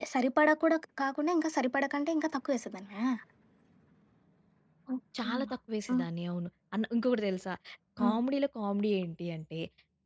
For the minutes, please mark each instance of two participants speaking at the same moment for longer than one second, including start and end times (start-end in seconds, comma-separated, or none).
none